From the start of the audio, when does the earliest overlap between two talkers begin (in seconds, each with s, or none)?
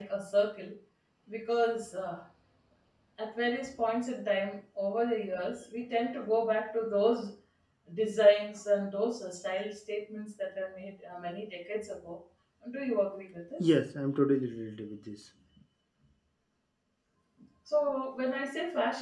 none